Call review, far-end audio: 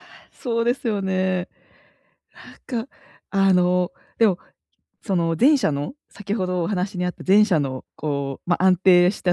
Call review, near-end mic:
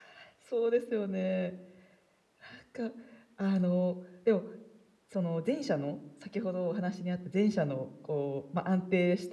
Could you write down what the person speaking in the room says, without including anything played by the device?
none

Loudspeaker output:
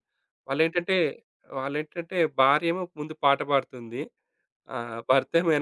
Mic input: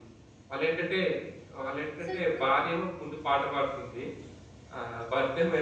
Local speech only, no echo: సో, ఇప్పుడు

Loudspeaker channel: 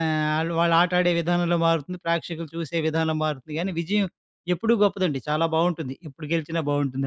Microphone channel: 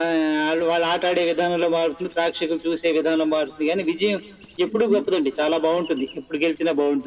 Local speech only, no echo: హుహు.

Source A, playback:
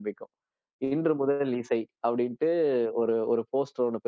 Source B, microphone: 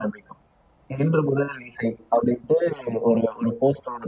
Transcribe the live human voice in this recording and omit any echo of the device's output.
none

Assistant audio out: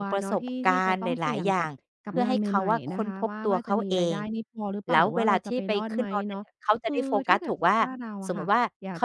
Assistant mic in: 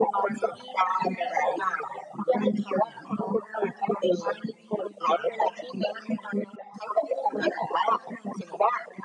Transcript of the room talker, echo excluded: none

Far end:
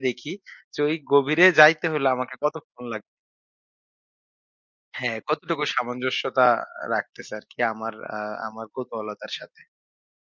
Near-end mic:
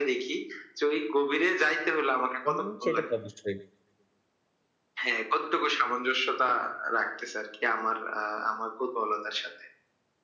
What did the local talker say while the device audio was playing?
হুম, সেটা তো অবশ্যই।

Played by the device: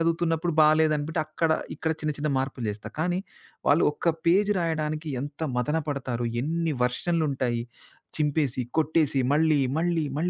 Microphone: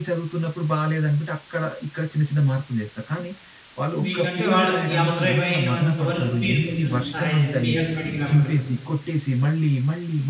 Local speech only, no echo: మీకంటే వాళ్ళకి అవసరమైనంత వరకు మీరు కొంచెం సహాయం చేసి మీ హెల్ప్ అడిగినప్పుడు.

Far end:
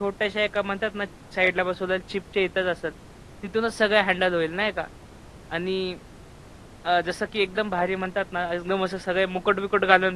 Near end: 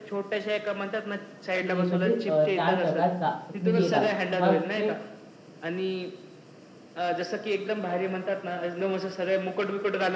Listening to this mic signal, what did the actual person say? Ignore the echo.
की म्हणजे अ, त्या जगात जा जर तुम्ही गेलात, तुम्हाला तिथे

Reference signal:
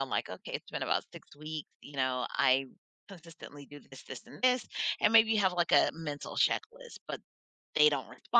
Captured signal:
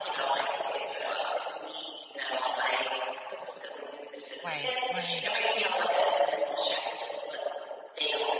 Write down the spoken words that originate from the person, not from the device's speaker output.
Right. Right.

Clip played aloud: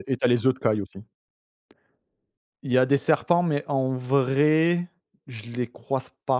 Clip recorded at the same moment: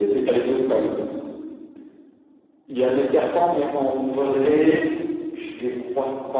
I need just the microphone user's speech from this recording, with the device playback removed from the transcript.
none

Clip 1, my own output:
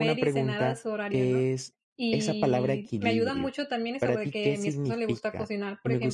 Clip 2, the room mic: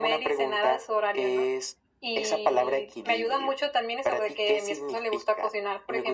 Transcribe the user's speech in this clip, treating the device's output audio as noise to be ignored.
none

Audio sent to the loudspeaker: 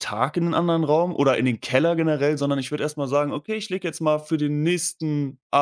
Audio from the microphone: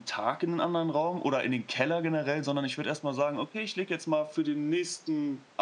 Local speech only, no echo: none

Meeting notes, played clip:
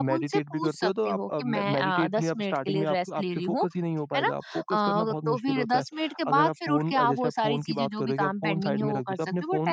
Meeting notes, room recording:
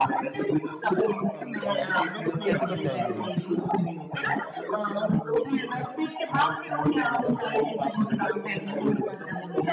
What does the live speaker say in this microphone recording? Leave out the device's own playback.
तो कैसे समझाएँगे उन्हें?

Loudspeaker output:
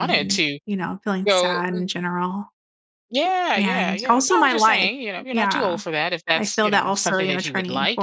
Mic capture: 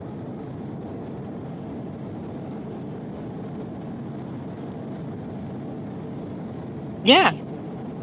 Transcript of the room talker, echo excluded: Yeah.

